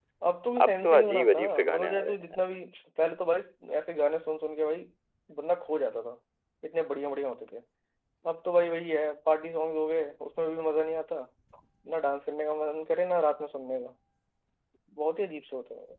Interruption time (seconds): 0.6 s

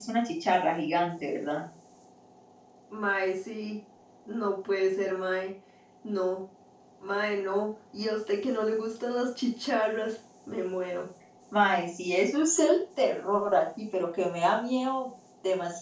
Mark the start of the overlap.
none

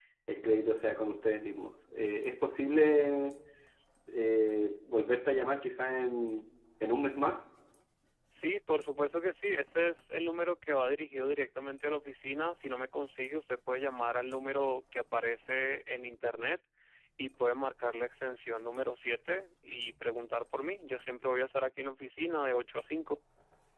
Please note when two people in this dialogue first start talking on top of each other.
none

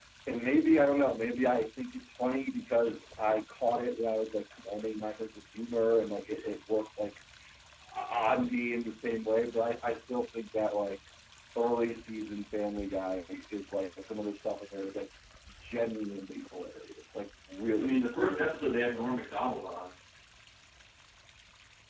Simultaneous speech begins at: 17.8 s

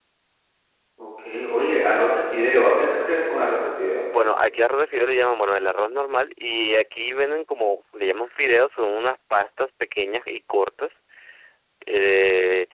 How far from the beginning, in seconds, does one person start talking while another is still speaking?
none

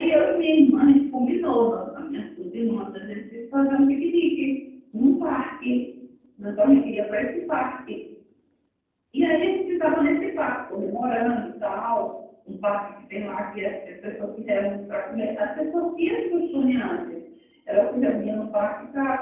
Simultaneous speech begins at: none

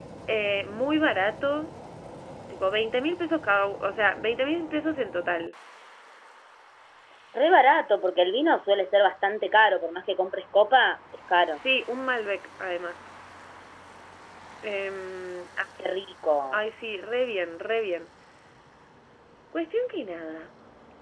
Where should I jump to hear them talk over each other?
none

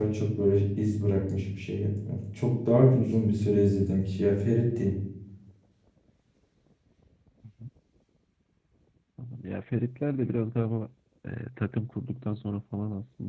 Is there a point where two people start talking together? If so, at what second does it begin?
none

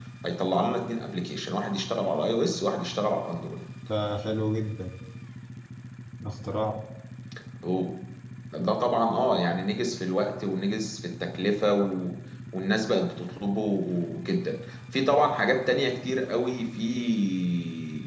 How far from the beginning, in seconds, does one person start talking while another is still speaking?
none

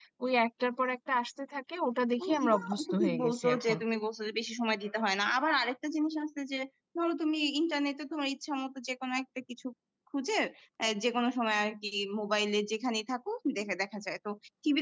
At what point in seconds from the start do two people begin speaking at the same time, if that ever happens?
2.2 s

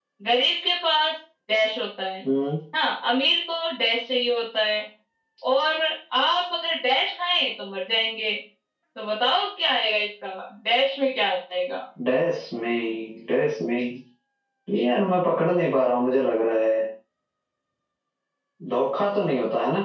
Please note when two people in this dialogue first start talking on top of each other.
none

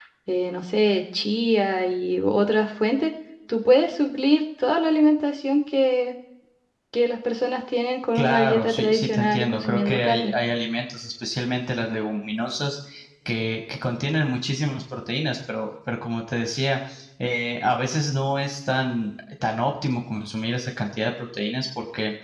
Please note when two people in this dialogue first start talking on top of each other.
8.2 s

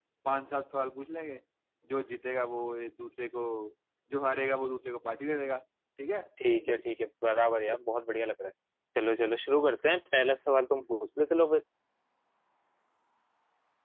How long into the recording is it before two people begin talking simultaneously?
none

